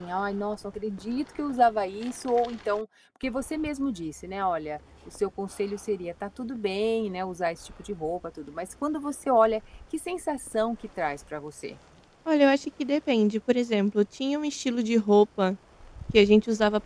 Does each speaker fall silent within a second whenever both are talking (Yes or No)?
Yes